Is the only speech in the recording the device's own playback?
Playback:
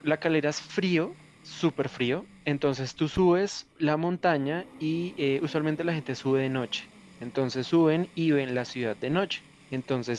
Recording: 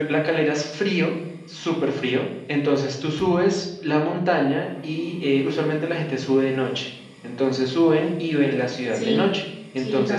No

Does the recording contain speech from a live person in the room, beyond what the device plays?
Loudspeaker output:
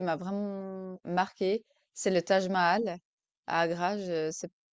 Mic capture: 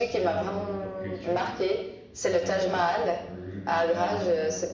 Yes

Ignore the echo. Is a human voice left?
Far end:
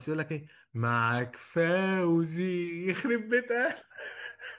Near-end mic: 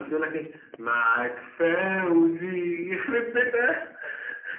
No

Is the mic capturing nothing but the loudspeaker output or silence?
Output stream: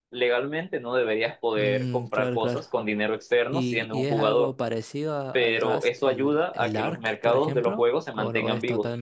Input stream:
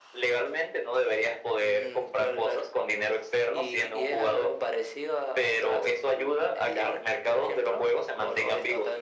Yes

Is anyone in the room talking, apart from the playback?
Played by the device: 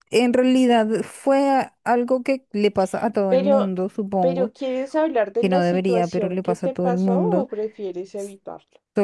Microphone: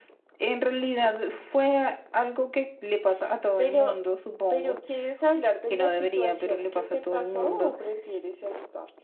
No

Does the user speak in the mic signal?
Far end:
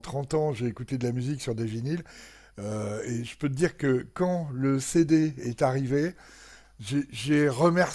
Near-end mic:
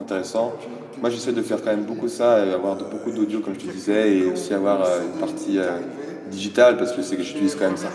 Yes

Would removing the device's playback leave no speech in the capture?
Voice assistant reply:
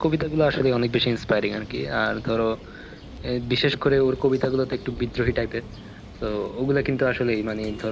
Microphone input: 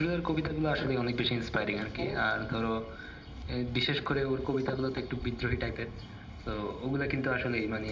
No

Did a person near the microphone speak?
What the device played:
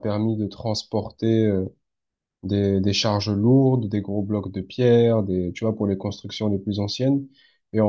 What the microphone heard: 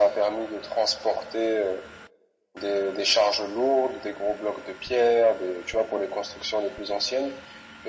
No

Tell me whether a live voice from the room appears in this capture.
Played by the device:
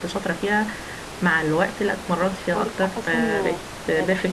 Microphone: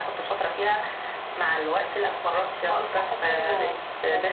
No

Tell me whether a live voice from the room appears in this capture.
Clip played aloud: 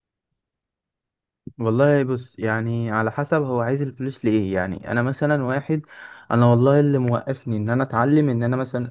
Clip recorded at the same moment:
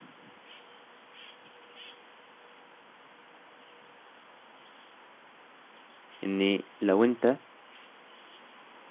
Yes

